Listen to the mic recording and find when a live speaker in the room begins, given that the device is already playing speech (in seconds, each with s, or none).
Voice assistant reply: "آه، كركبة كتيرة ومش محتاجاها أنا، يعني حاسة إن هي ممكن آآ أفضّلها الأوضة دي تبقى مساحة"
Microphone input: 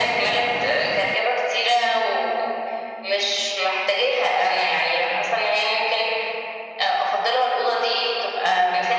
none